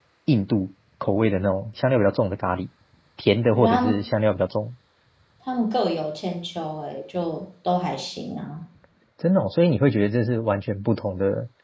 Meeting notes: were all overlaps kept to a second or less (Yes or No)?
Yes